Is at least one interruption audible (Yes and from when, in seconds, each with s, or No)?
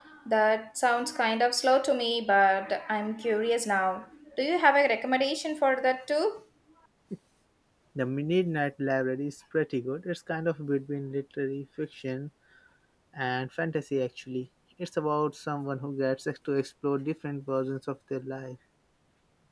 No